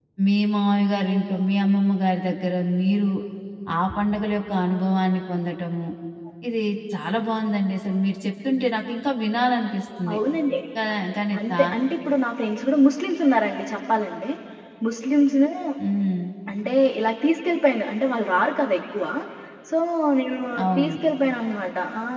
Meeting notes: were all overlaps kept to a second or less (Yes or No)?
Yes